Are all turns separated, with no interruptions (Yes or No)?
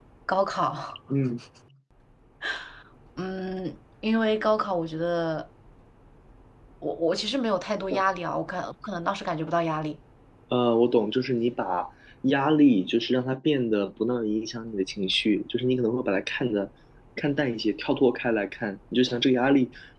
Yes